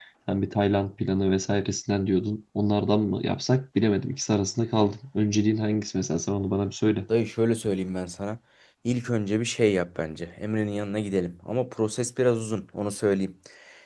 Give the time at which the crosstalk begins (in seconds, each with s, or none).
none